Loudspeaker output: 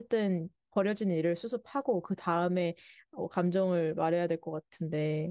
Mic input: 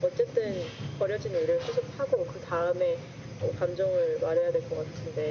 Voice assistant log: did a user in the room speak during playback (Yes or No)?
No